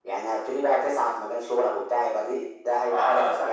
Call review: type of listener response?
taking over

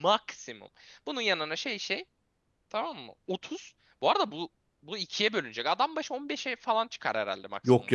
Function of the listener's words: taking over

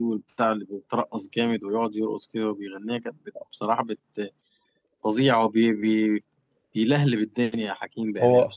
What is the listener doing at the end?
taking over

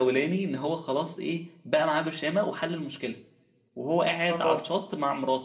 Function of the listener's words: listening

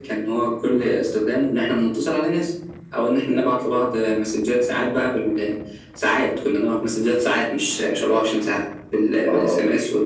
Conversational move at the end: listening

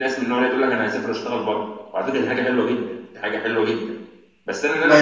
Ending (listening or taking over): listening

